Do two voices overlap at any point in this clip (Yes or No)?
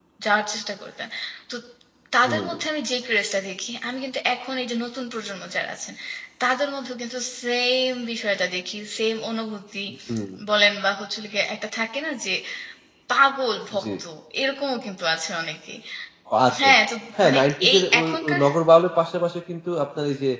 Yes